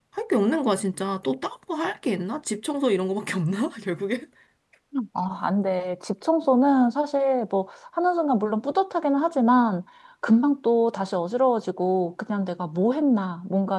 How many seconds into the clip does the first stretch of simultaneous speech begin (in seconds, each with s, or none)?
none